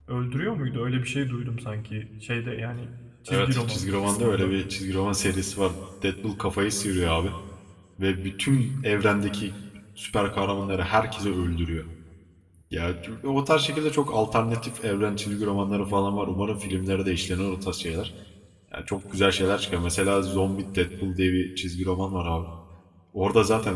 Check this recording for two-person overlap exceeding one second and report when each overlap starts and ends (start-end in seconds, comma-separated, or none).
3.3-4.5